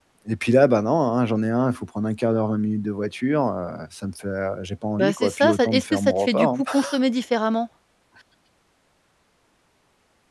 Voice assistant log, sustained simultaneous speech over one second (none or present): present